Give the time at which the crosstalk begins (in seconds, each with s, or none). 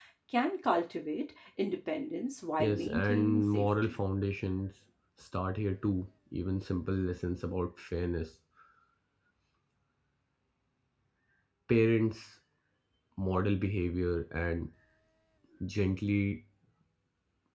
2.6 s